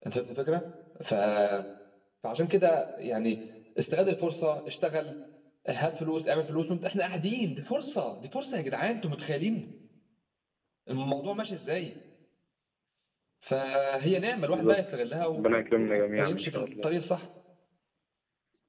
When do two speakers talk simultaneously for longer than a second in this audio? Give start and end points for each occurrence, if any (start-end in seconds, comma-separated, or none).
15.3-16.9